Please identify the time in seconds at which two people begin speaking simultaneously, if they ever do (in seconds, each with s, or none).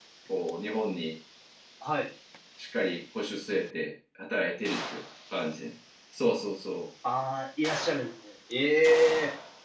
none